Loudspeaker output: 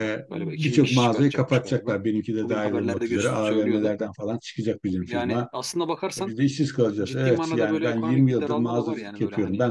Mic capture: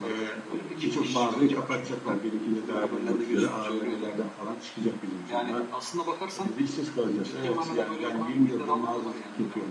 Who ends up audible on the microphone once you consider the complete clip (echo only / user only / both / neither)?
echo only